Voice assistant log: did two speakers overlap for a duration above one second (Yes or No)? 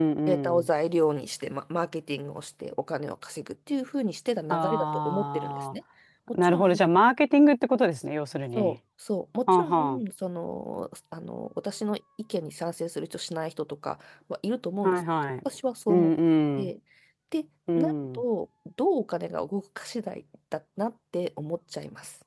Yes